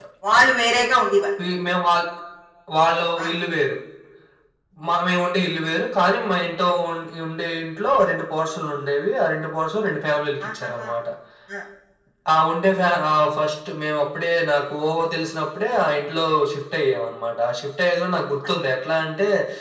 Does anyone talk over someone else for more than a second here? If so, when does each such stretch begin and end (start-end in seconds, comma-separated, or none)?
none